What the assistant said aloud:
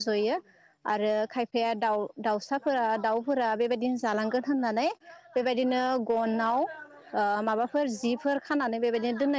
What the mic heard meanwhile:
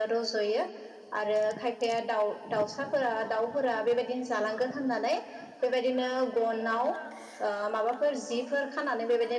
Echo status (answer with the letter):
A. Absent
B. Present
B